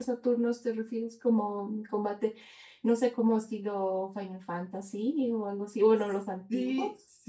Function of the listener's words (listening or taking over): taking over